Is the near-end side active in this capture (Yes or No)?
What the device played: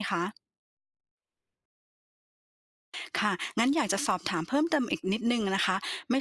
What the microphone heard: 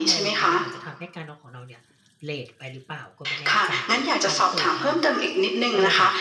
Yes